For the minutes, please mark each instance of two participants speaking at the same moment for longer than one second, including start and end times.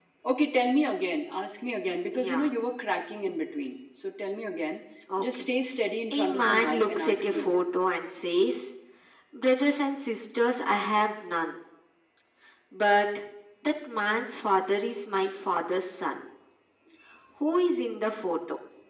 6.1-7.7

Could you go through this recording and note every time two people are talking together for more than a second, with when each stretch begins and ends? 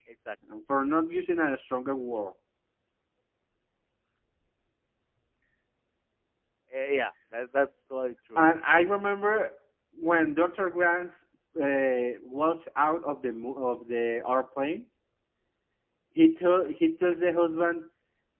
none

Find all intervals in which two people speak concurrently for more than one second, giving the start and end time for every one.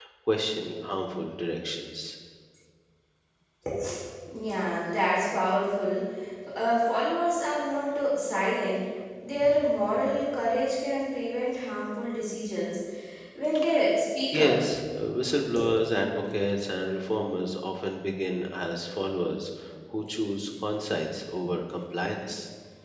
none

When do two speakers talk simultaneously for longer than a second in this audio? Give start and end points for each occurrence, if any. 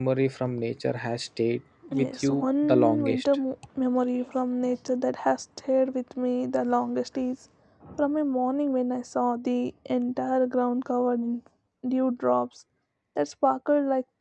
1.9-3.2

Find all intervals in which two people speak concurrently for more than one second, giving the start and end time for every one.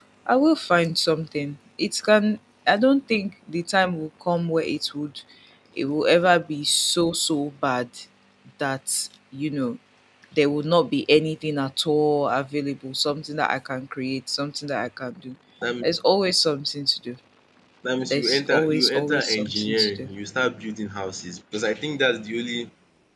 18.1-20.1

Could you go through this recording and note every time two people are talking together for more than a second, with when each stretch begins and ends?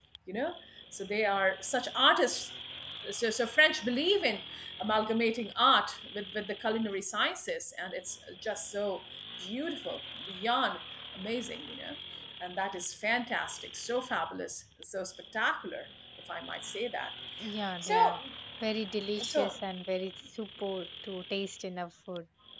none

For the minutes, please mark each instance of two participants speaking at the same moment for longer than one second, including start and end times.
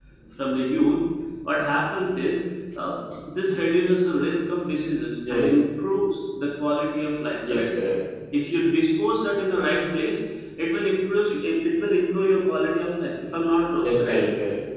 none

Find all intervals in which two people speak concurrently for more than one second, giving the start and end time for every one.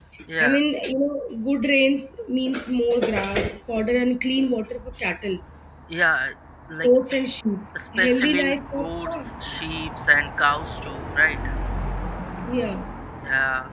8.0-9.2

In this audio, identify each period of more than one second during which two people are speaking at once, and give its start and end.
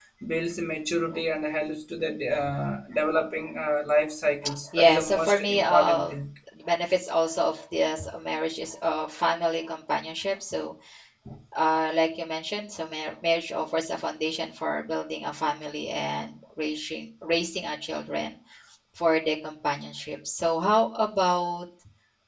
4.8-6.1

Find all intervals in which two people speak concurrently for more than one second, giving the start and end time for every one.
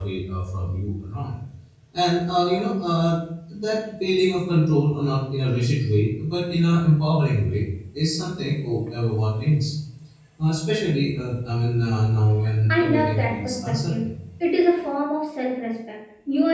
12.7-14.1

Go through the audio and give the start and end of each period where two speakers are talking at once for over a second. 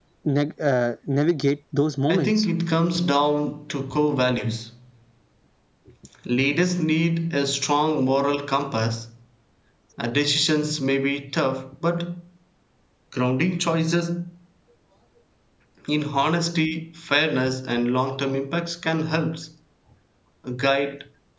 none

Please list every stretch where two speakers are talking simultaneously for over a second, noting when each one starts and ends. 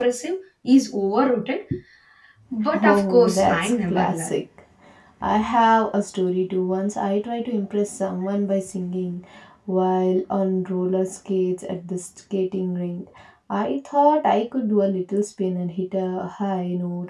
2.7-4.3

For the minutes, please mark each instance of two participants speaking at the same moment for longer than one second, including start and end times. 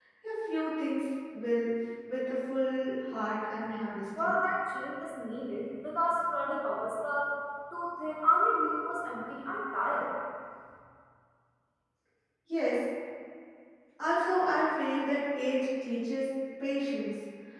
none

